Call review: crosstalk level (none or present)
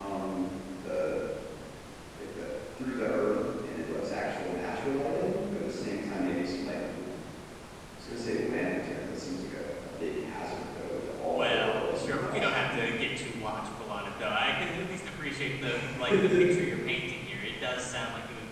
present